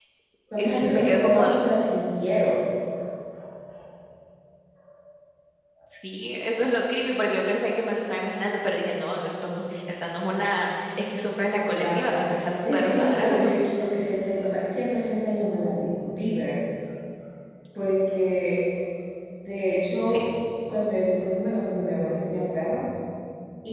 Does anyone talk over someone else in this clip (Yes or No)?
Yes